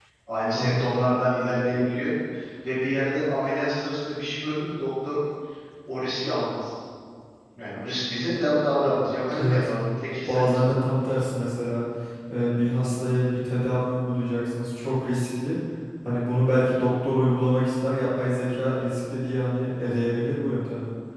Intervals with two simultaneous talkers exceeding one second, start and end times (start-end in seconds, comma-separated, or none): none